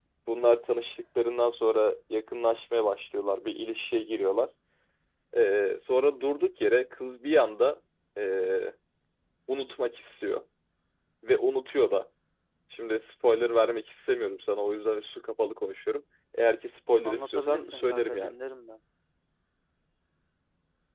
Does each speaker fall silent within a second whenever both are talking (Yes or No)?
No